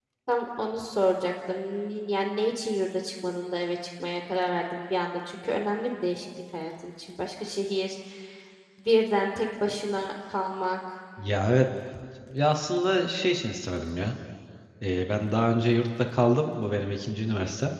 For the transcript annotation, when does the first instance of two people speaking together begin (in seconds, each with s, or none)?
none